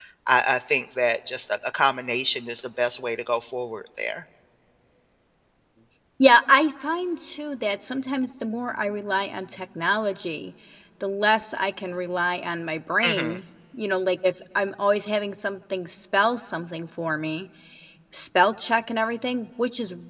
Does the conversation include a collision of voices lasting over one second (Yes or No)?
No